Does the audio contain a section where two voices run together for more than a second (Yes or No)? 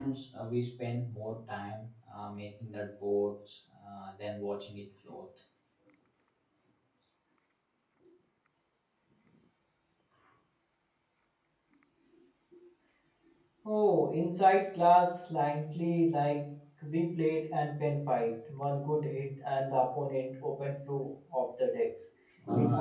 No